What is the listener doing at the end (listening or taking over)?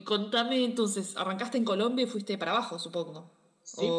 taking over